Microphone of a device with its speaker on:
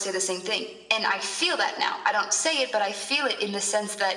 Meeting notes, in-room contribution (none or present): none